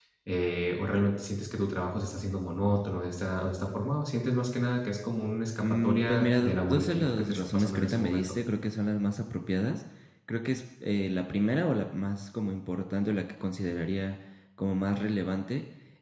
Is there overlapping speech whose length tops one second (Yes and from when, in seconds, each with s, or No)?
Yes, from 5.6 s